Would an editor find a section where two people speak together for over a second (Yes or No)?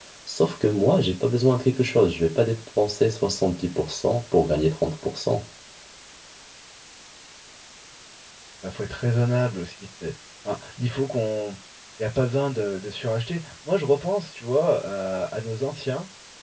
No